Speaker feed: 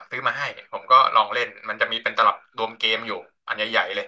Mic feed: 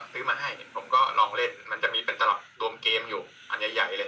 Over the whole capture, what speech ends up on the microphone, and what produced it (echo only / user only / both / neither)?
echo only